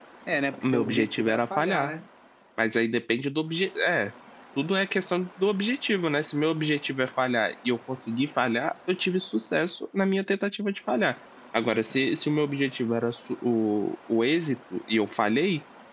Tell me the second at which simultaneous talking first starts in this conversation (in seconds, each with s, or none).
0.6 s